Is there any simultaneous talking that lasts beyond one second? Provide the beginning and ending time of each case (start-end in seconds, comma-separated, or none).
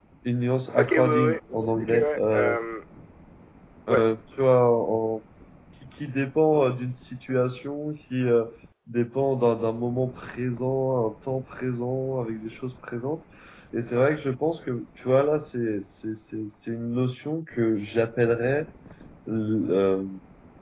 0.8-2.6